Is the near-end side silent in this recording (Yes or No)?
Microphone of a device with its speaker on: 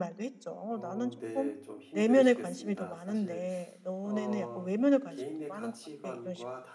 No